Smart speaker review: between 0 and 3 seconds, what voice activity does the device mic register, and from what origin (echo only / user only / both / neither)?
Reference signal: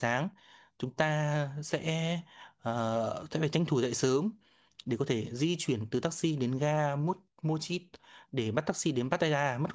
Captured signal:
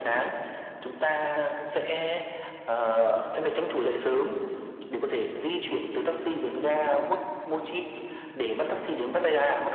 echo only